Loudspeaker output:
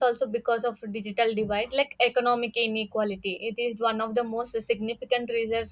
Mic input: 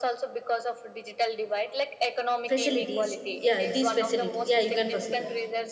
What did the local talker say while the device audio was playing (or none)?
facilities yeah these facilities yeah you can proceed yeah